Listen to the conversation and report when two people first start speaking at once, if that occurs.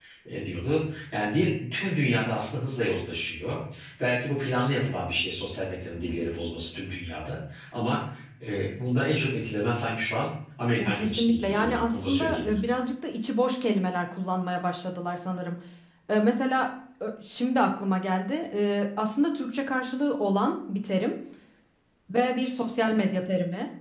11 s

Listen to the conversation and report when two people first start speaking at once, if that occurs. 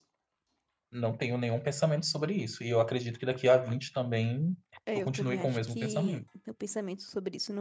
5 s

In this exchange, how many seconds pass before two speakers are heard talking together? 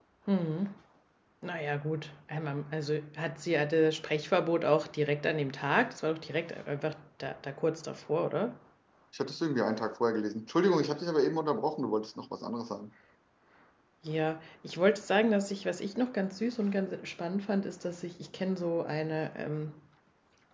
none

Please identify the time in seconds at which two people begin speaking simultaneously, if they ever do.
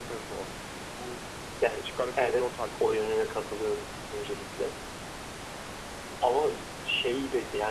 2 s

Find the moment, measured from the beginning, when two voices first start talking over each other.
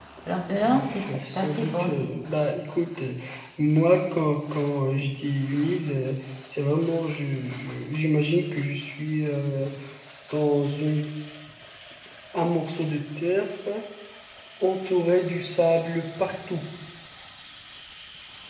1 s

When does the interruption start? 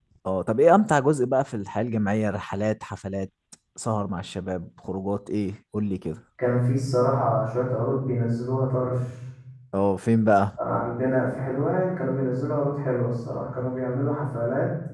none

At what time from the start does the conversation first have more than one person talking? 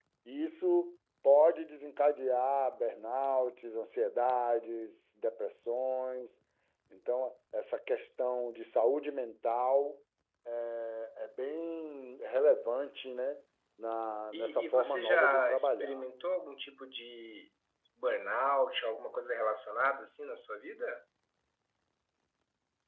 14 s

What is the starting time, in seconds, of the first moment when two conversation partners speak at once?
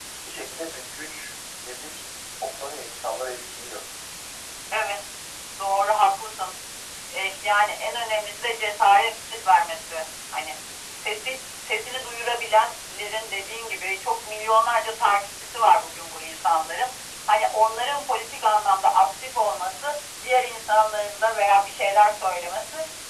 none

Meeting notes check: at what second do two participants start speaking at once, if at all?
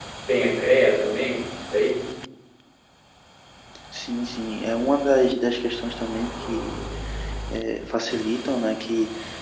none

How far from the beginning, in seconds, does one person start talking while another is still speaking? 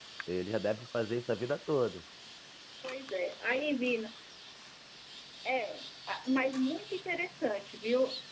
none

